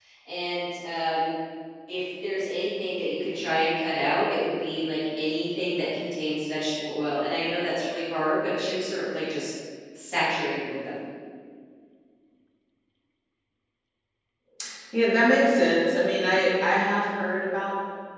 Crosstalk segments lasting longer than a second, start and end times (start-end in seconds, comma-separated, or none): none